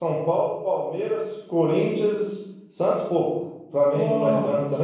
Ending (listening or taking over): listening